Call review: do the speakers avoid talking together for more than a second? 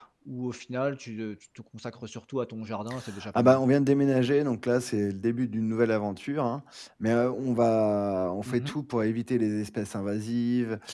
Yes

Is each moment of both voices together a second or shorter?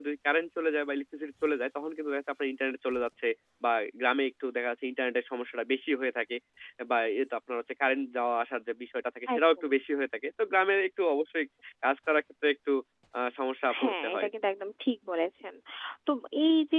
Yes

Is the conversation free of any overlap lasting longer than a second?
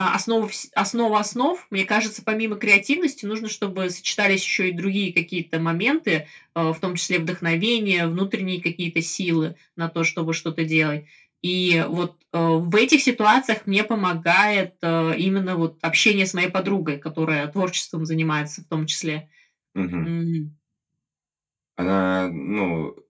Yes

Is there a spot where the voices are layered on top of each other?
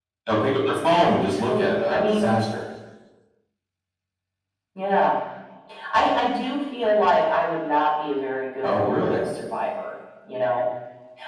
Yes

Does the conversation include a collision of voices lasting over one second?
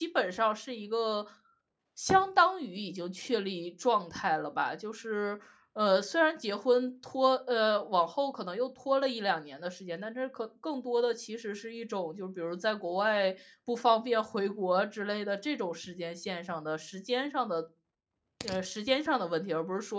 No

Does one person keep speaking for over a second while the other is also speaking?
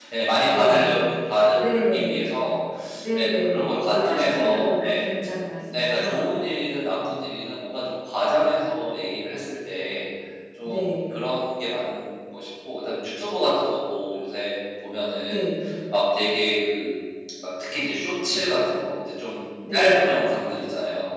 Yes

